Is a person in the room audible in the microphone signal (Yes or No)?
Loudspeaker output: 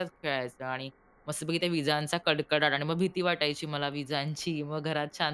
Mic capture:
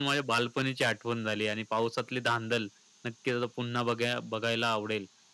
Yes